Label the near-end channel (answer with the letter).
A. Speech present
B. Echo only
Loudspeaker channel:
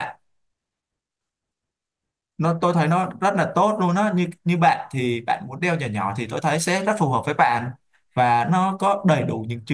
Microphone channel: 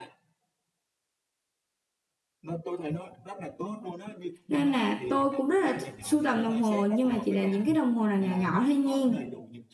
A